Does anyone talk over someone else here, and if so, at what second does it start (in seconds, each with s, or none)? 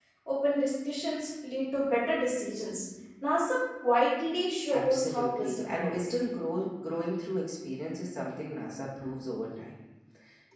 4.7 s